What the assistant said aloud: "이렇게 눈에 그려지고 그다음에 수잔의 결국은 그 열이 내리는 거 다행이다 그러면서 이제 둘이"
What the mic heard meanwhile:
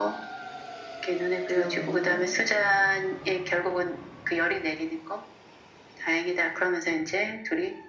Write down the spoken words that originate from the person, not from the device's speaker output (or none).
둘러보는 거